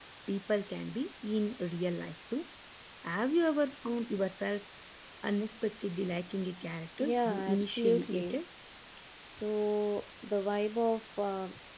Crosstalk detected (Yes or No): Yes